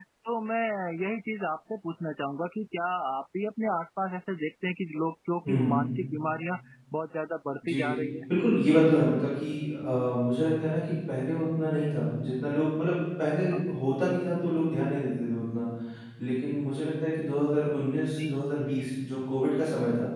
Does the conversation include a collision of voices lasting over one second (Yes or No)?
No